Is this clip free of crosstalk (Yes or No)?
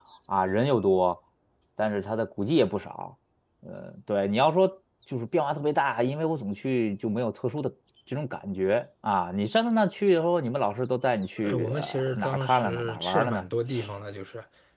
No